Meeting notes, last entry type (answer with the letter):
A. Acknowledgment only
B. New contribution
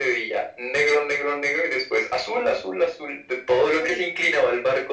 A